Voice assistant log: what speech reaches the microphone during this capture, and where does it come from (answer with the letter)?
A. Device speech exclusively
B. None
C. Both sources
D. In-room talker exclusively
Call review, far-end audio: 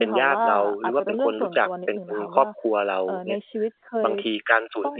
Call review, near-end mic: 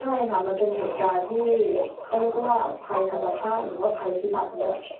C